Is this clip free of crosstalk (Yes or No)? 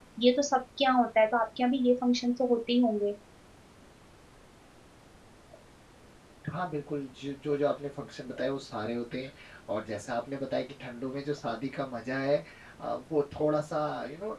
Yes